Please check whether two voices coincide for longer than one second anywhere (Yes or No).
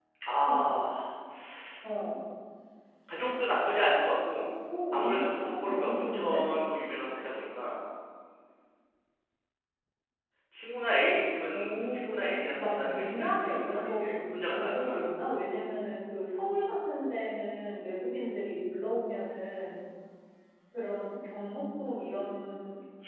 Yes